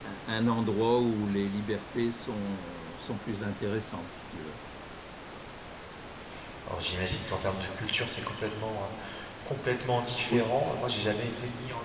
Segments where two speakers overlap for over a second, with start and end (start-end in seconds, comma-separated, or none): none